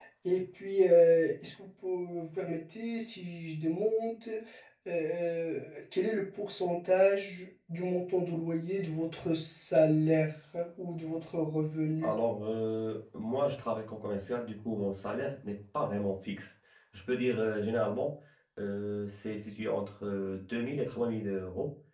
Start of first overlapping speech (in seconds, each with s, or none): none